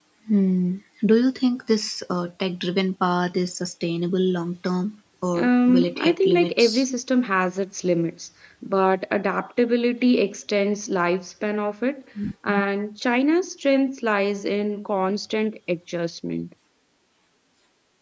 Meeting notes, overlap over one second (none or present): present